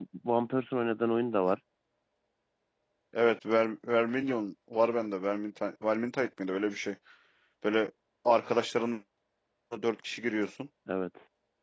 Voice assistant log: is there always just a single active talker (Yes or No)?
Yes